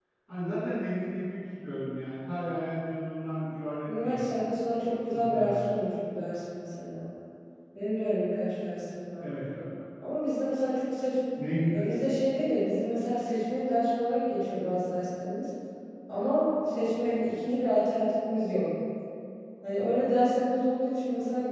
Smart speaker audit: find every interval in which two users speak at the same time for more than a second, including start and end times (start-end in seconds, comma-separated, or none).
none